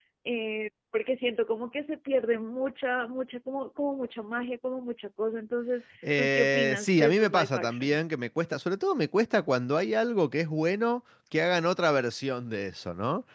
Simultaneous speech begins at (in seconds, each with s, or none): 6.0 s